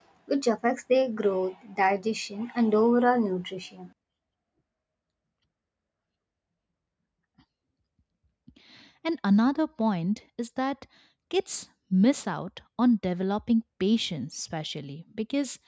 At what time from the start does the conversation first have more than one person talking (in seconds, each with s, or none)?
none